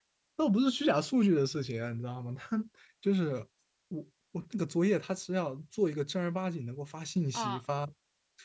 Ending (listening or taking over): listening